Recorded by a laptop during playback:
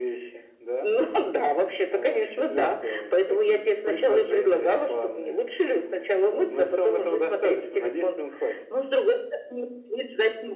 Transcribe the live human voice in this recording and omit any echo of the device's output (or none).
none